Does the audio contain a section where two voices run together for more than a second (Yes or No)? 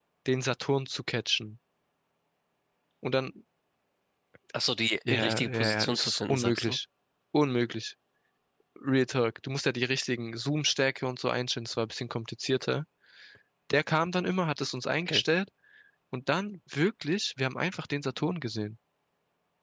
Yes